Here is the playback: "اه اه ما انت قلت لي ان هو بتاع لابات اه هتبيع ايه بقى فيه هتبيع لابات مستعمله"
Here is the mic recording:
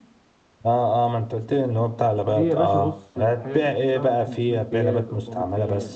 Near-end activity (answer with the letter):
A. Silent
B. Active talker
B